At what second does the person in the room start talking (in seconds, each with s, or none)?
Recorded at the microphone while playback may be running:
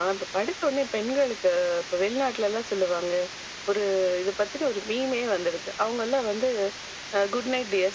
none